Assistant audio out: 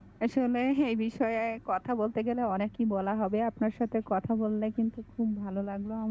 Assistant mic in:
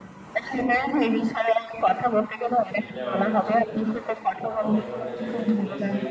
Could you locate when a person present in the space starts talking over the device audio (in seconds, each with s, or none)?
2.8 s